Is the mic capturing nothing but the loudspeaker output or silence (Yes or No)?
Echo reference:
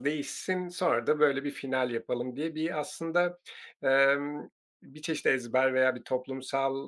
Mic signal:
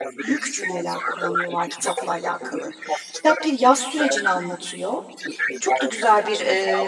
No